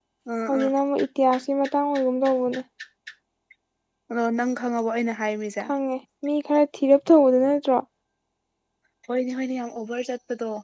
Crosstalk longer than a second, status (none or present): none